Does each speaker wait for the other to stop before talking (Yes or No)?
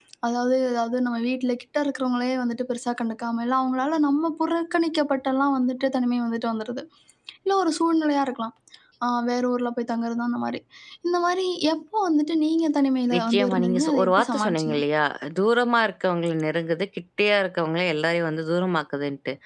No